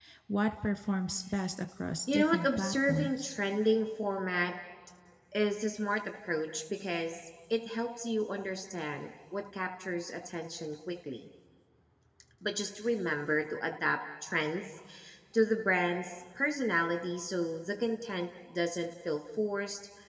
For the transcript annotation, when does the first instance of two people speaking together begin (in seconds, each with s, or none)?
2.1 s